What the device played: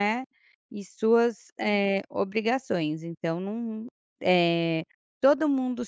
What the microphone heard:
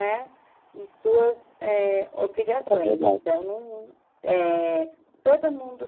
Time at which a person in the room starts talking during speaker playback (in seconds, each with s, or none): 2.6 s